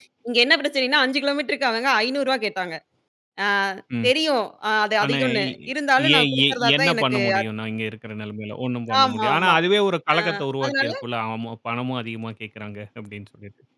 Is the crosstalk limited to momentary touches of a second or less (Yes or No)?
No